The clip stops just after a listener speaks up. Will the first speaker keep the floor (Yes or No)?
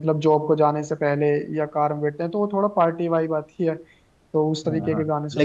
No